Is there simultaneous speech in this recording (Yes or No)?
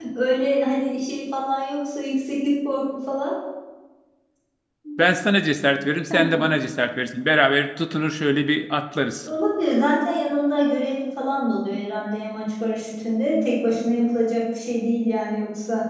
No